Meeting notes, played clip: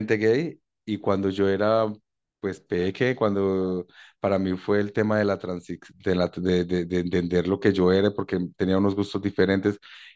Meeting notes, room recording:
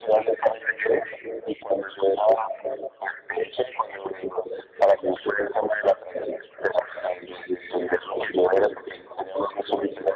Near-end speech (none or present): none